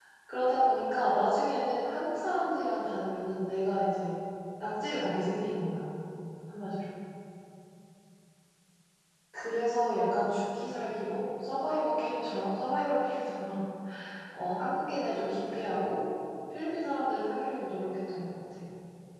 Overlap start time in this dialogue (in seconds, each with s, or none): none